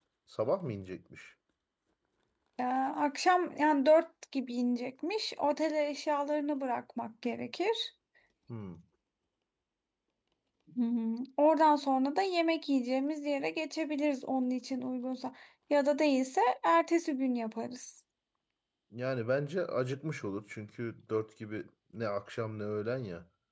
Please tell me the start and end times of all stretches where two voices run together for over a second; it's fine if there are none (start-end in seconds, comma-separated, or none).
none